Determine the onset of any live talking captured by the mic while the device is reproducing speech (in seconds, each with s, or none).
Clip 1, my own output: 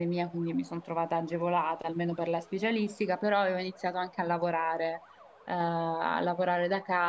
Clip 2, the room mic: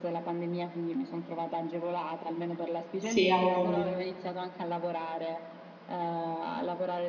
3.0 s